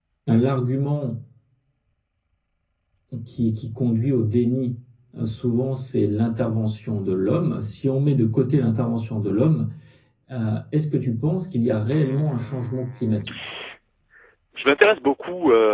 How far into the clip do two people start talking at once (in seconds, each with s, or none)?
11.9 s